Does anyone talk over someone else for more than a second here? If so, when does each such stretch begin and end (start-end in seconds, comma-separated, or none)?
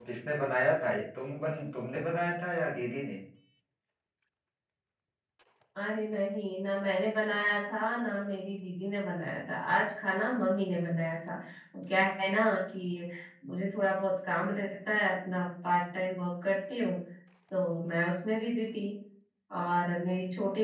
none